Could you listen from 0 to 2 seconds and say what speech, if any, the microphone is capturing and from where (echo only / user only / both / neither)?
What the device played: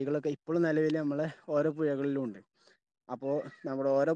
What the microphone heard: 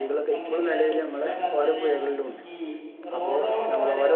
both